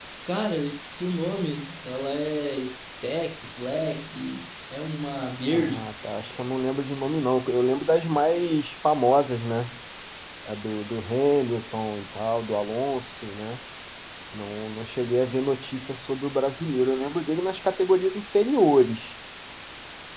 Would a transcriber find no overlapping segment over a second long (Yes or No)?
Yes